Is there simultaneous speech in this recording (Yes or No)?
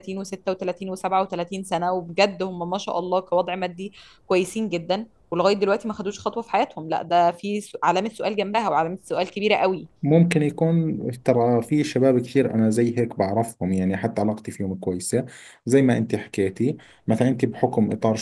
No